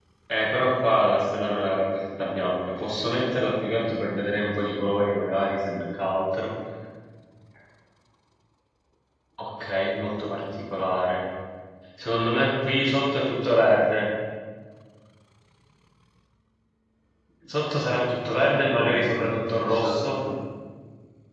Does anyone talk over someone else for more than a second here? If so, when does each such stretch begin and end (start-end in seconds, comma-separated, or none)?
17.9-20.2